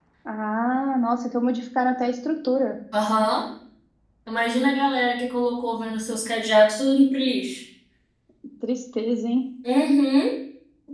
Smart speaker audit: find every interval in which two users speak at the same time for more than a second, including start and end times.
none

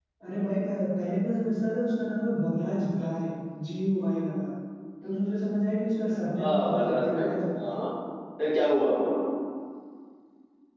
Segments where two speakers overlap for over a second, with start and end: 6.3-7.8

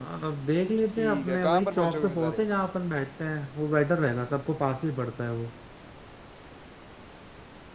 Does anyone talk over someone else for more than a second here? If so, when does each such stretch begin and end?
1.0-2.4

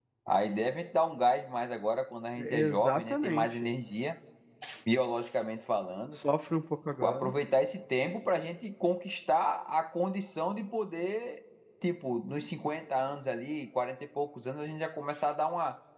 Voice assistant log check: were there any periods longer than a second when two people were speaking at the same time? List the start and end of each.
2.4-3.7

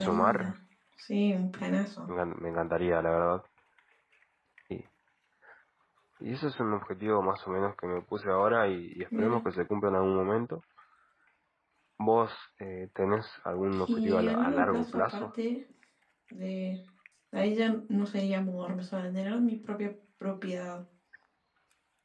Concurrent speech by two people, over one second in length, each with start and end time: 13.7-15.3

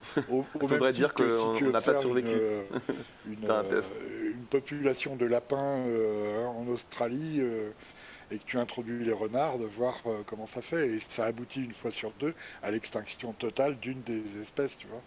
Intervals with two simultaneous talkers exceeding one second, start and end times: 0.6-2.5

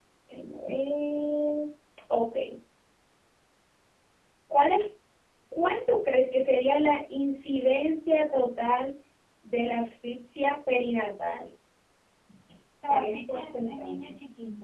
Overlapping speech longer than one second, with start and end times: 12.8-14.1

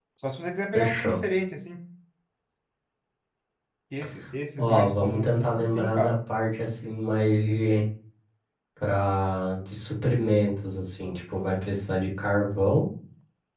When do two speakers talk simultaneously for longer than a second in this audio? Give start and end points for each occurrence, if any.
4.6-6.1

